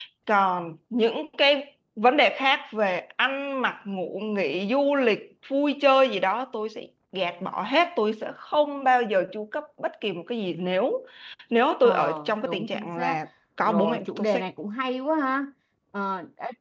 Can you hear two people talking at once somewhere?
Yes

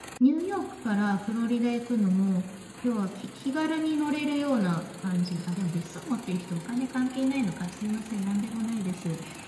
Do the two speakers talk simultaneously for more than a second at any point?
No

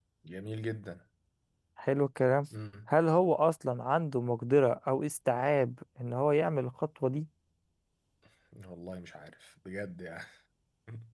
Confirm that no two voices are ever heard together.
Yes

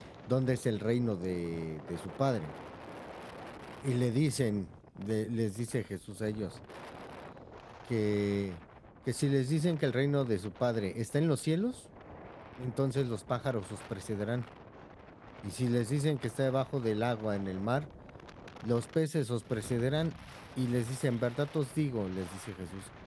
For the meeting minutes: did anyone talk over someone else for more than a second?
No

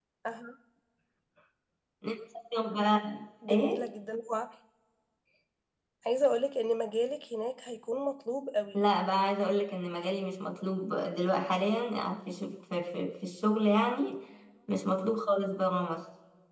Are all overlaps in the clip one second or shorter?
Yes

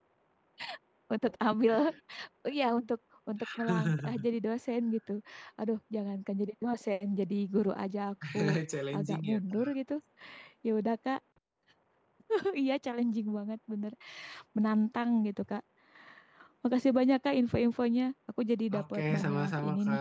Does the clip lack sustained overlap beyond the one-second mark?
No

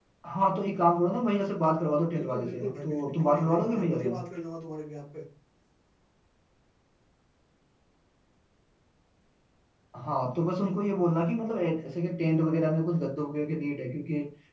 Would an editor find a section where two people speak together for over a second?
Yes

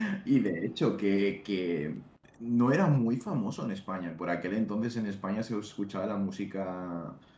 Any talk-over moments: No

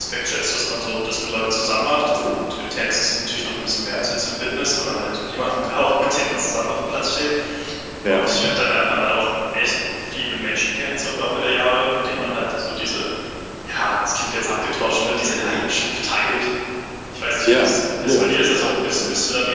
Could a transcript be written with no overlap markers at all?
No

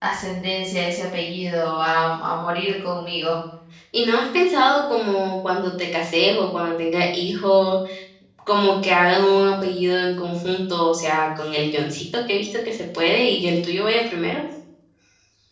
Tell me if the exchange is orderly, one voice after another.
Yes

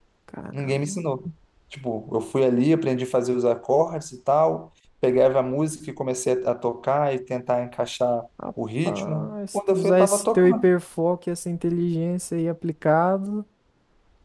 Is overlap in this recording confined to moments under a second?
No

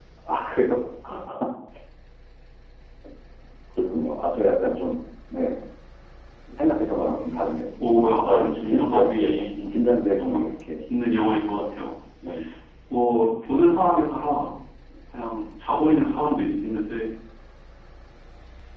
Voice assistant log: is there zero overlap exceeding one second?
No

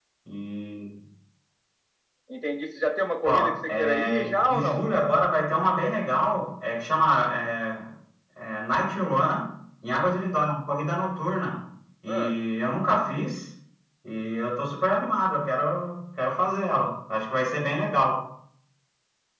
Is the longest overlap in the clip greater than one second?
Yes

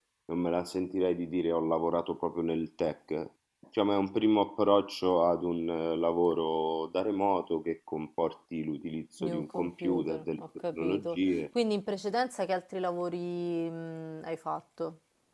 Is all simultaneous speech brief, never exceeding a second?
No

